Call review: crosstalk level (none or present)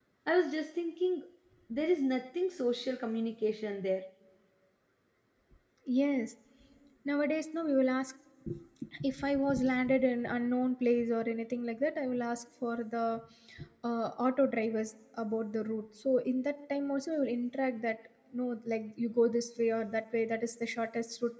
none